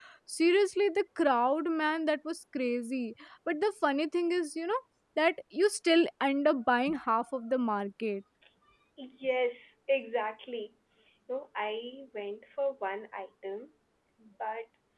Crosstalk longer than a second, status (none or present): none